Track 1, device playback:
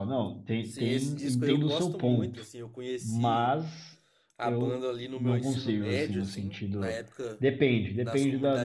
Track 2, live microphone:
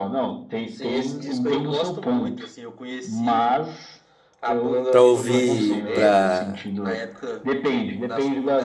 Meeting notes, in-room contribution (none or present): present